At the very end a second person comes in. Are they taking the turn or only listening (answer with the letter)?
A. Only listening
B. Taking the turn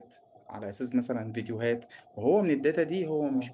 A